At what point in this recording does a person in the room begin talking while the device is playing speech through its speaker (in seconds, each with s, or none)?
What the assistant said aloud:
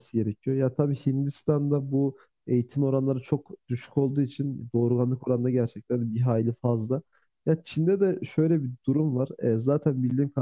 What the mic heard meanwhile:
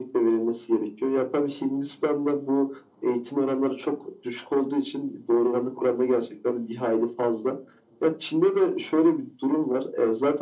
none